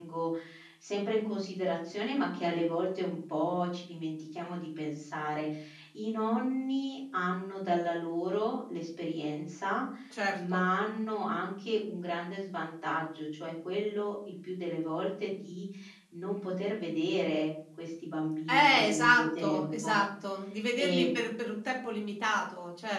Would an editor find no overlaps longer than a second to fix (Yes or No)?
No